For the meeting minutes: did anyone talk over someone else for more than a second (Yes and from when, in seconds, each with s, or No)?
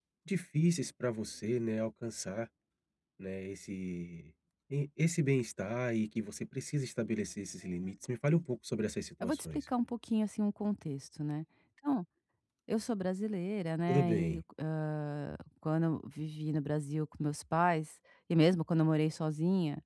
No